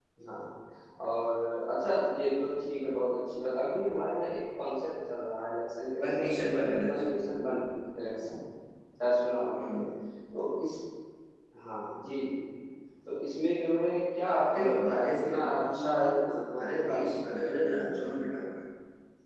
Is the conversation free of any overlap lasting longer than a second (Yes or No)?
No